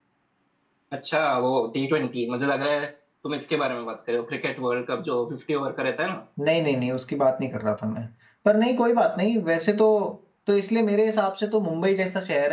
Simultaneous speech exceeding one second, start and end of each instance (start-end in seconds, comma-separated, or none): none